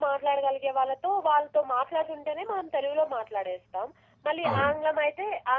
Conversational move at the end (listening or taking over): listening